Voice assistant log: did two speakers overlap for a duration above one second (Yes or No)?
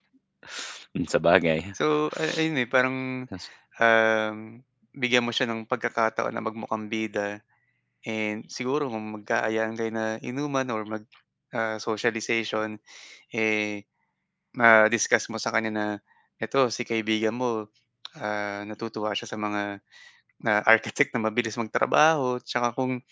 No